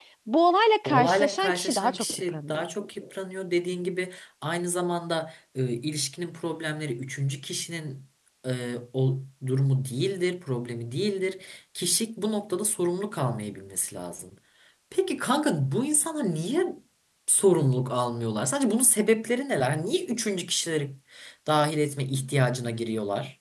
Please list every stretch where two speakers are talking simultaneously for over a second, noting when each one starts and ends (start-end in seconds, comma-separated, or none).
0.8-2.6